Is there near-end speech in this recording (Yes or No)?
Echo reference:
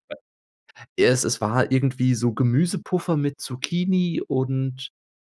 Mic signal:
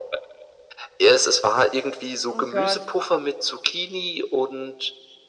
Yes